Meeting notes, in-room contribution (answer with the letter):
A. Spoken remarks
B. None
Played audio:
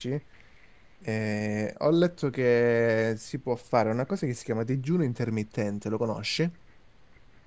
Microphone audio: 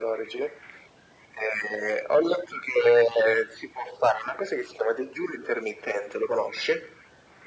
B